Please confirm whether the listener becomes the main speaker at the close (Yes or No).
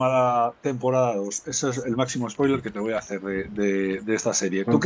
Yes